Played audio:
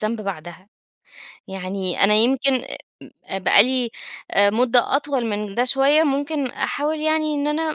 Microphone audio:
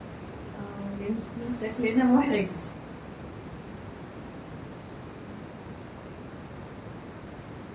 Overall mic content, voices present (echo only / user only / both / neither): user only